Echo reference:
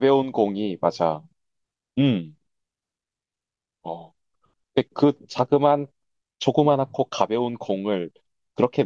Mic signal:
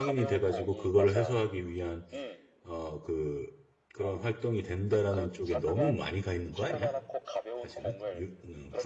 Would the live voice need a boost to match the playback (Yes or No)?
No